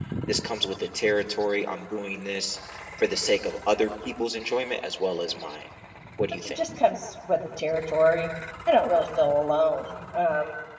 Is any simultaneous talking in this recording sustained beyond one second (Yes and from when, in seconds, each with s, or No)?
No